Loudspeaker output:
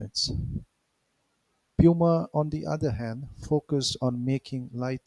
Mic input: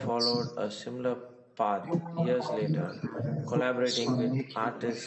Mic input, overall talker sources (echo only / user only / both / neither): both